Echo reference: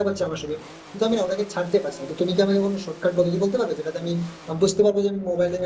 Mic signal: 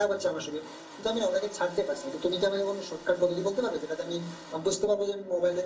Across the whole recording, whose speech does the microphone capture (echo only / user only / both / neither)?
echo only